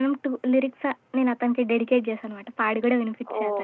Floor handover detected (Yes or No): Yes